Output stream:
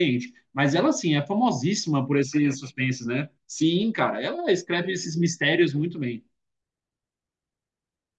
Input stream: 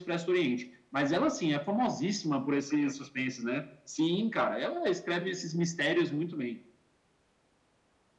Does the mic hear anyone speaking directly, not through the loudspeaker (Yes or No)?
No